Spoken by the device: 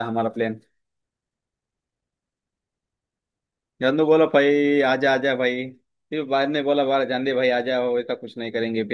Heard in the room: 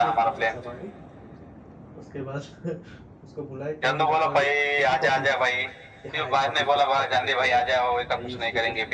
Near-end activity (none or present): present